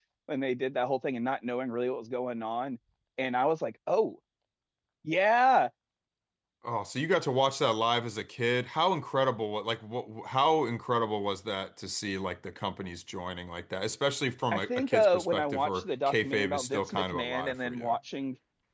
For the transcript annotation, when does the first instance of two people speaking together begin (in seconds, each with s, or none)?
14.5 s